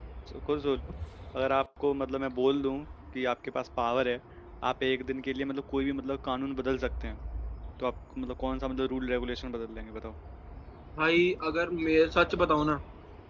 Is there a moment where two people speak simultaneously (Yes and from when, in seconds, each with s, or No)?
No